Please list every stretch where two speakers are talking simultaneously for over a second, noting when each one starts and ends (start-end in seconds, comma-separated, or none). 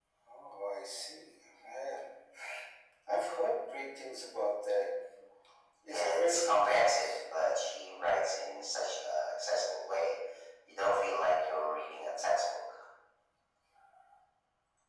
5.9-7.1